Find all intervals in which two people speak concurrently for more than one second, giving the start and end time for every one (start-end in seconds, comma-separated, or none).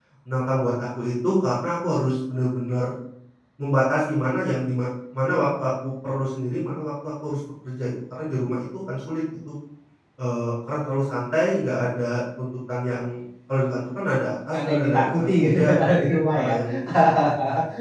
14.5-15.7